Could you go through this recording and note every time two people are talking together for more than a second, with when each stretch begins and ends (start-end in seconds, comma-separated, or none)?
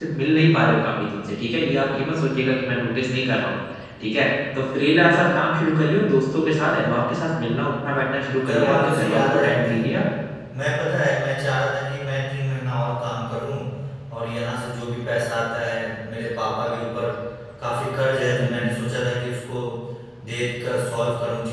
8.4-9.8